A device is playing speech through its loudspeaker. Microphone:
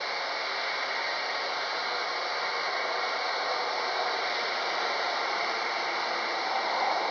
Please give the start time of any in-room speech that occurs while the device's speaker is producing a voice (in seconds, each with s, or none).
none